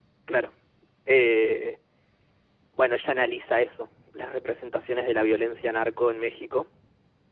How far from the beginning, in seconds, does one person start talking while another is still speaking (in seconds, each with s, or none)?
none